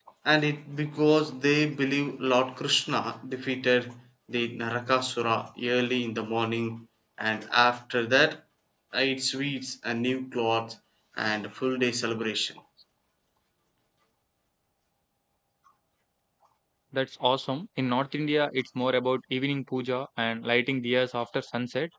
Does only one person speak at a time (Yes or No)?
Yes